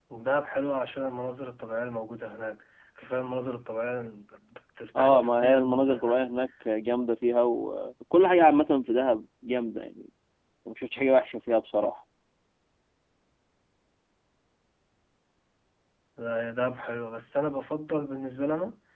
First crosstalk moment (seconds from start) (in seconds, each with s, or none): 5.0 s